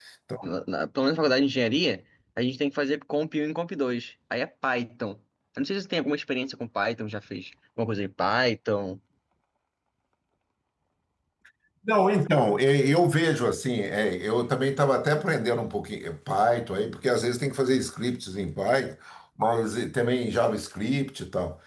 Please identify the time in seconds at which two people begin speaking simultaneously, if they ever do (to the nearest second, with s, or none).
none